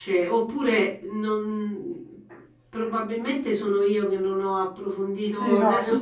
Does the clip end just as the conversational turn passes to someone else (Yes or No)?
Yes